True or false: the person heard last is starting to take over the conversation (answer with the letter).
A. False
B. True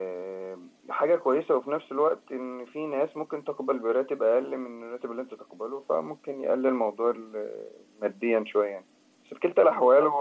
A